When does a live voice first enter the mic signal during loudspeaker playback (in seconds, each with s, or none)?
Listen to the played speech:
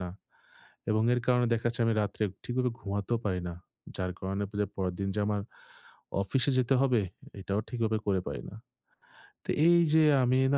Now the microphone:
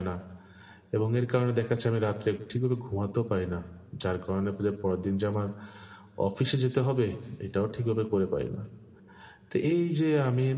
none